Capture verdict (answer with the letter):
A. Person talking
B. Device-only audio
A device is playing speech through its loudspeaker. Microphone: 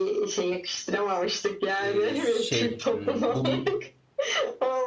A